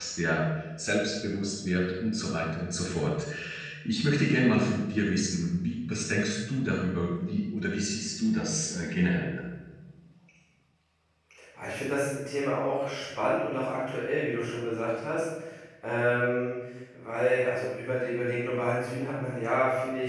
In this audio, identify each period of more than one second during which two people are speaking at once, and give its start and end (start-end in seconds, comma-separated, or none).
none